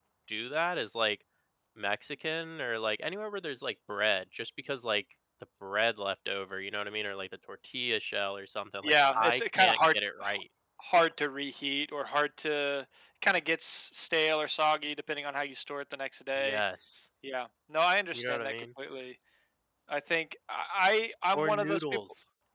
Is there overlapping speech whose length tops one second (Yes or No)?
Yes